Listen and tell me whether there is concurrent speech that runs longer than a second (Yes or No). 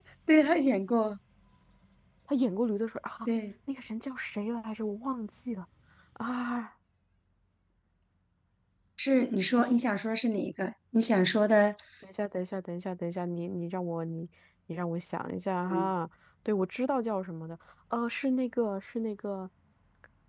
No